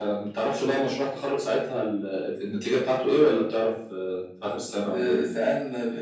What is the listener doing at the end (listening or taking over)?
taking over